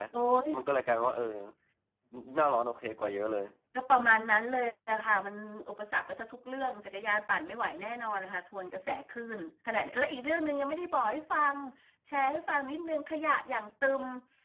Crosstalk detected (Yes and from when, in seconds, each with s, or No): No